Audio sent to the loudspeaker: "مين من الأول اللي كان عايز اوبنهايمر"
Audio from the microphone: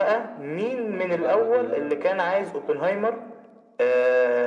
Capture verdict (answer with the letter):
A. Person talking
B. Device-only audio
A